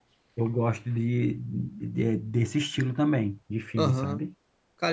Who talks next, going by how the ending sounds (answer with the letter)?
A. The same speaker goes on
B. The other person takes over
B